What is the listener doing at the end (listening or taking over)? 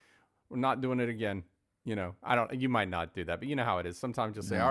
listening